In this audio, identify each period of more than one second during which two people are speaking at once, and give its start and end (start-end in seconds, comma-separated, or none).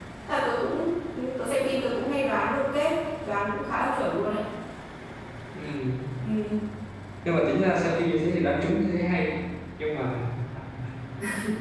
none